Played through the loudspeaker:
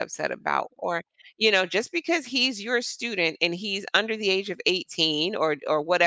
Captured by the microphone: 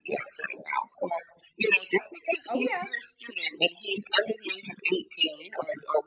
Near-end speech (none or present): present